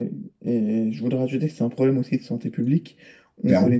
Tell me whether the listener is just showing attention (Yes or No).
Yes